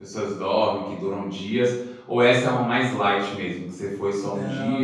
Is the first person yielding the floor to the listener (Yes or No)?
Yes